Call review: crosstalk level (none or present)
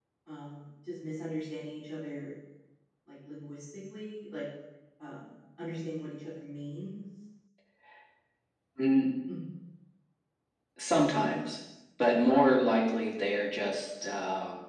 none